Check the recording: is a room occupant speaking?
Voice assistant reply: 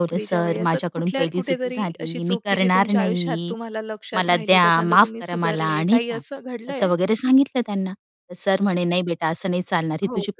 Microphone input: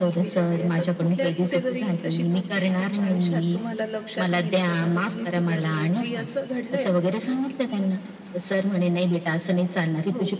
No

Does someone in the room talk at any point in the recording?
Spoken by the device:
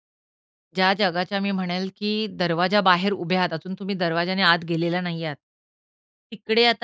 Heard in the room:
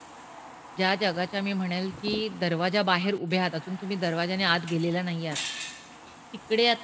No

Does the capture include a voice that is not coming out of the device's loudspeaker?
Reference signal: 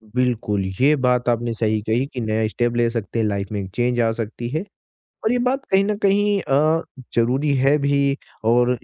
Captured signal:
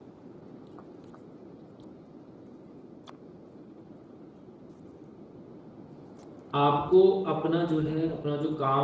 Yes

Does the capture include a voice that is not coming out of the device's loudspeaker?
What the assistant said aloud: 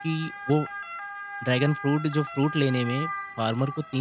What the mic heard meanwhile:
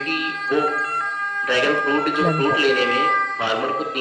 Yes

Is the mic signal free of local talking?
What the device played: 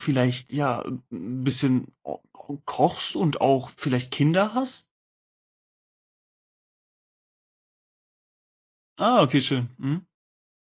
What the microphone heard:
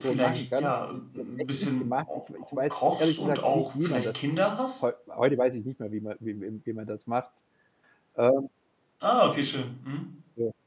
No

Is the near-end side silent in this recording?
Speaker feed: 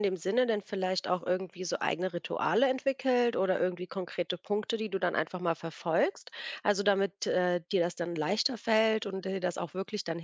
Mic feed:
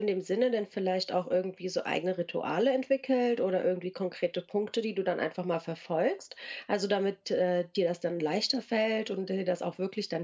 Yes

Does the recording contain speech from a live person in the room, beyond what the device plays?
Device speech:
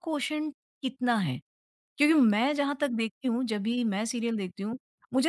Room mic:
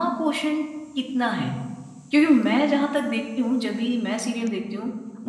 No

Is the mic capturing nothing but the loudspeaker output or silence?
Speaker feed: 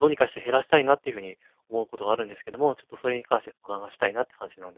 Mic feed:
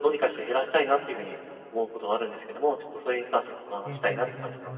No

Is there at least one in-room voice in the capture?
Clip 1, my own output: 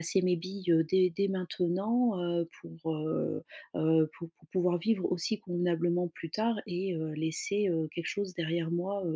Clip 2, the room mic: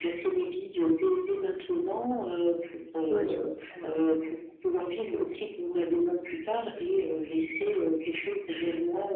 Yes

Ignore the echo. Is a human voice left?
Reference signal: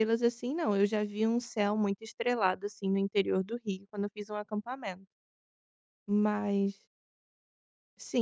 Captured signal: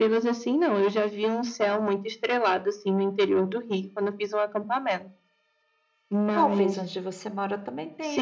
Yes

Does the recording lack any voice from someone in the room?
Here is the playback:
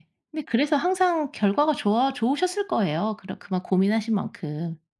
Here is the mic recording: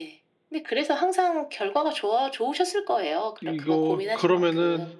No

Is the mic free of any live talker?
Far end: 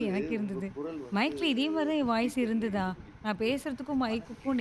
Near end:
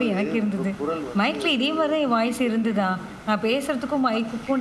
Yes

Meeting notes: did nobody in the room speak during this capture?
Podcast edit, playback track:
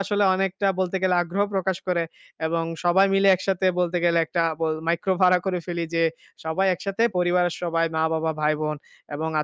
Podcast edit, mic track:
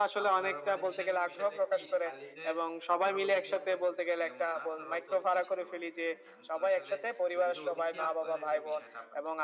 No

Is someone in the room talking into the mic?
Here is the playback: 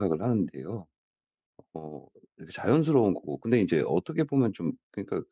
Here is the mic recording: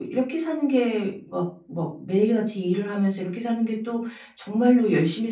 Yes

